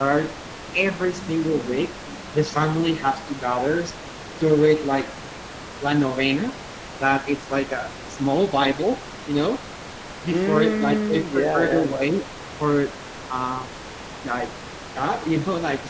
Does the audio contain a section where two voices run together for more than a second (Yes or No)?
Yes